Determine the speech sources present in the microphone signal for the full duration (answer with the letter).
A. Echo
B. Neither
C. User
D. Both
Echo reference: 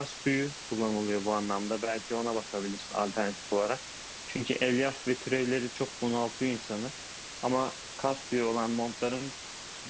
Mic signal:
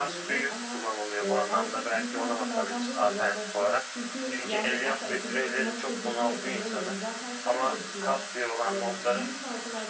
D